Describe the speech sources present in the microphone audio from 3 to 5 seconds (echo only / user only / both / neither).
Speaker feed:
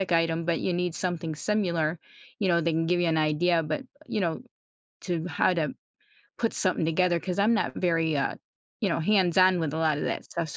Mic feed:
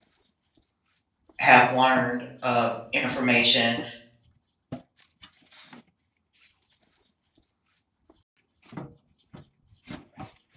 user only